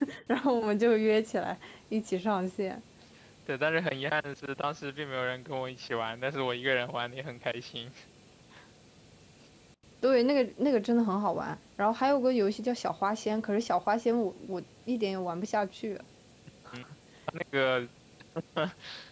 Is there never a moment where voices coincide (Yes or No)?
Yes